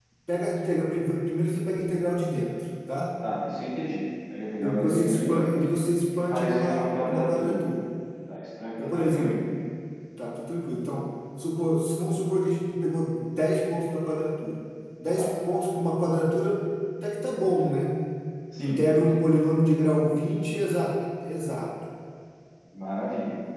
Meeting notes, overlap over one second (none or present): present